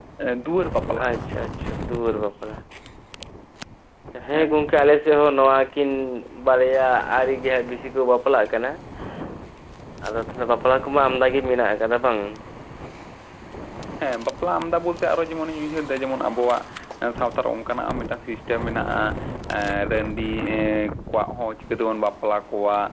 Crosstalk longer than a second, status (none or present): none